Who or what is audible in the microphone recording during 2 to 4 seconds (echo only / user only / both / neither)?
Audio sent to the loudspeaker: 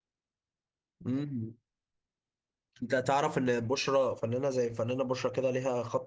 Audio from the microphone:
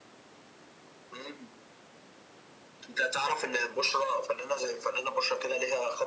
echo only